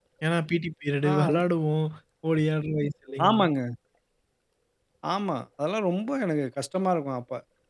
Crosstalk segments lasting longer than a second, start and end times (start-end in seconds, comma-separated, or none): none